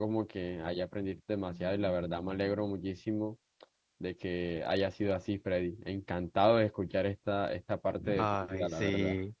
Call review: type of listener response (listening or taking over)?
taking over